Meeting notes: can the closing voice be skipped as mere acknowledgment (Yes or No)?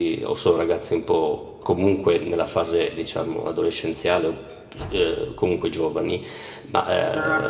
Yes